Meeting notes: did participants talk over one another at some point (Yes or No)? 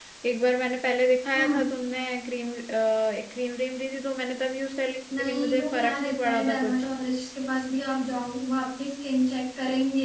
Yes